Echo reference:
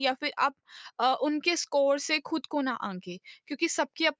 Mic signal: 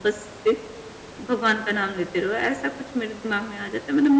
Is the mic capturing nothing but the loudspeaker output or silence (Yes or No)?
No